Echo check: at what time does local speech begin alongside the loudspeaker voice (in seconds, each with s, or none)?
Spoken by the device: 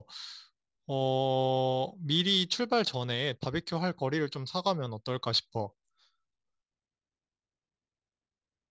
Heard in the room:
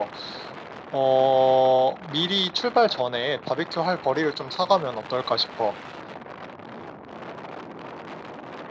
none